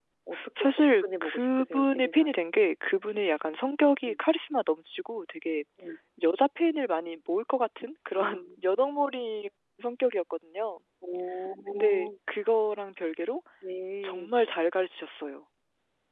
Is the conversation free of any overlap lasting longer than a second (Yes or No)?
No